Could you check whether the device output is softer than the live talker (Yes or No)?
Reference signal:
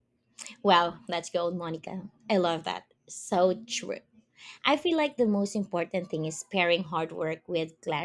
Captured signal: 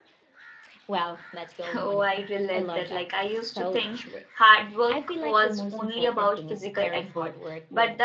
Yes